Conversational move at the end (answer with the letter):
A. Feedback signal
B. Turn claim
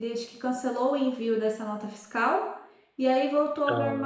A